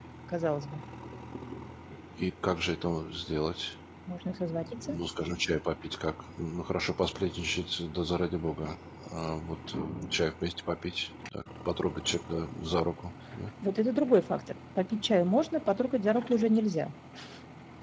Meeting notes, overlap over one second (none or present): none